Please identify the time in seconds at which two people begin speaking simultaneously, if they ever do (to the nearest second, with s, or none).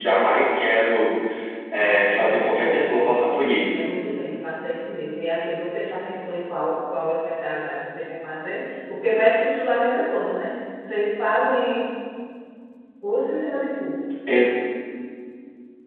2 s